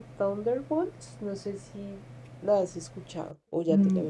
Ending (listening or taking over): taking over